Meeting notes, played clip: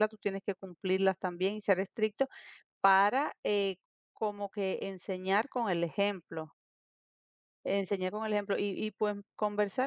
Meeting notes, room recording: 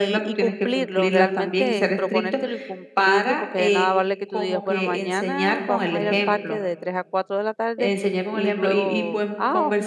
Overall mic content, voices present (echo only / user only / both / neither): both